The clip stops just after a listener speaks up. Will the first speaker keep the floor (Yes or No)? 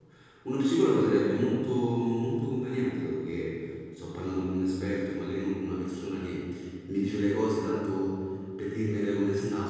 No